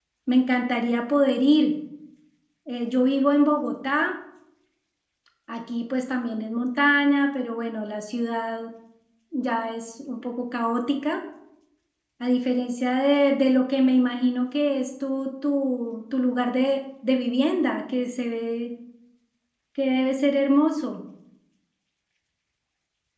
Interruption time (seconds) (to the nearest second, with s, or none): none